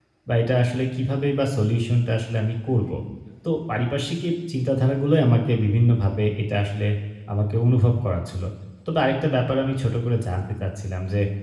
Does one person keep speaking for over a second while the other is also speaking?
No

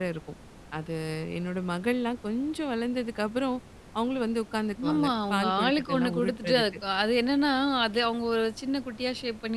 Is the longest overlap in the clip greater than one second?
Yes, from 4.8 s

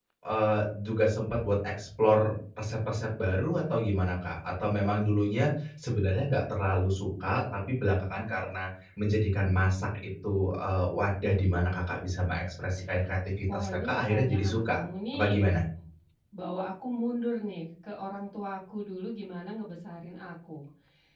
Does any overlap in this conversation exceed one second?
Yes, from 13.5 s

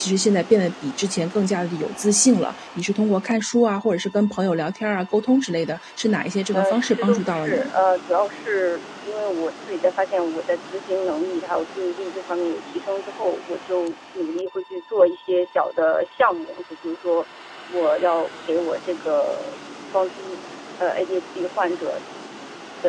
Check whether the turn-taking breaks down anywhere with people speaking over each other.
Yes, from 6.5 s

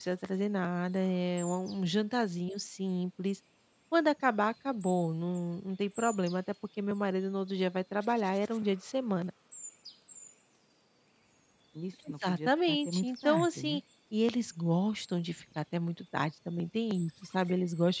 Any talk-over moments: Yes, from 12.3 s

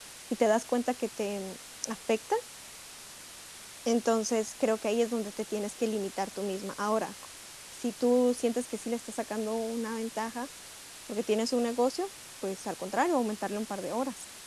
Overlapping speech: No

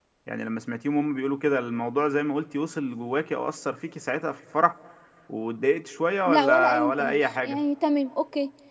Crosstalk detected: Yes, from 6.3 s

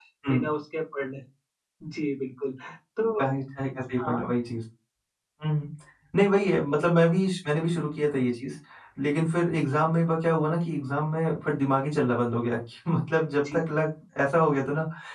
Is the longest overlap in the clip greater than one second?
No

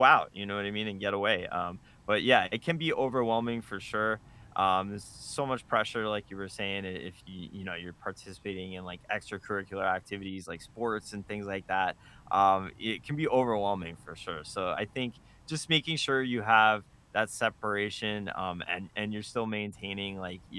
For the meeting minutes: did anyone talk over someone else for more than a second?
No

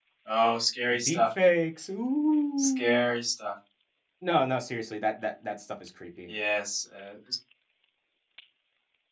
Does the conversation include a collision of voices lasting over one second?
No

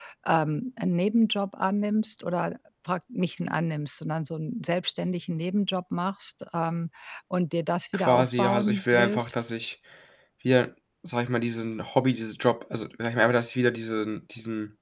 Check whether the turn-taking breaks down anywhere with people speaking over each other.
Yes, from 7.9 s

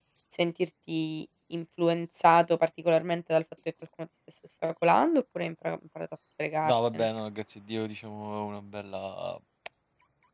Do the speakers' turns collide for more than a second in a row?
No

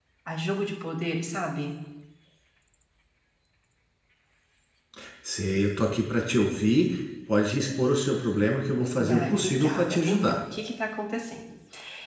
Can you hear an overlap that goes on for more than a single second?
Yes, from 9.0 s

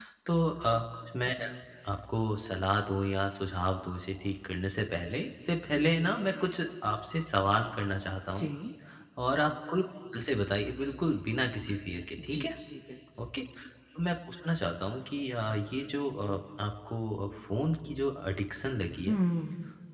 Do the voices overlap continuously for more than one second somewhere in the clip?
No

